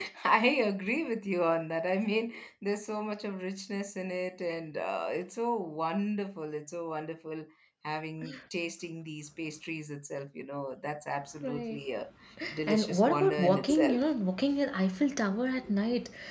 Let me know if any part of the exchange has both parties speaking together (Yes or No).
Yes